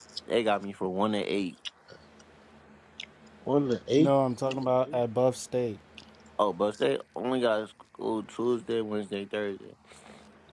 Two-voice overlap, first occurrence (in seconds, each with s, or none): none